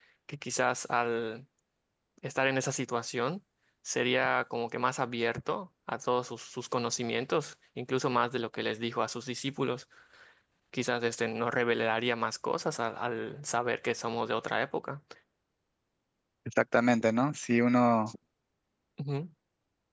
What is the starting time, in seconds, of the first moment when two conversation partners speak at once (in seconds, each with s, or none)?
none